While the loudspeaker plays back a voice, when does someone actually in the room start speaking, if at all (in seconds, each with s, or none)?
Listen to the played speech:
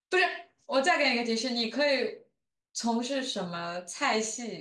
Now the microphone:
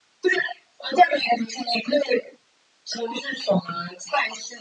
none